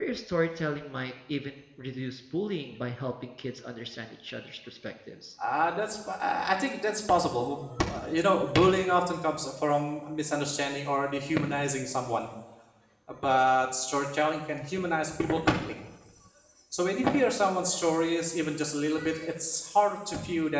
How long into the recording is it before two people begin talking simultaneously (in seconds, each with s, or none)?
none